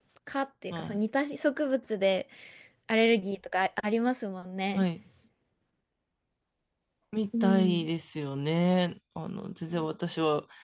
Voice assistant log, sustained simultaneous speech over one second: none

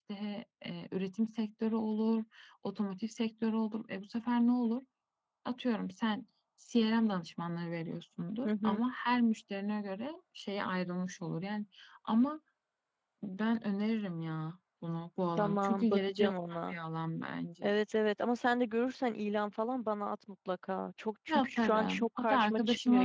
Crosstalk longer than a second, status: present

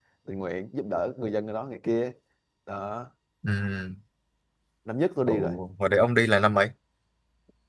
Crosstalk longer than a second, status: none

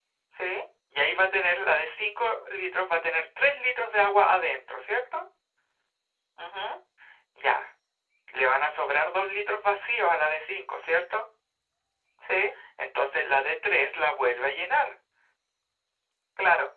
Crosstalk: none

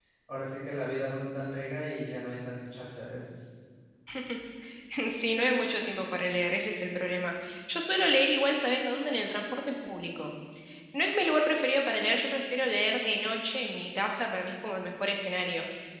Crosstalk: none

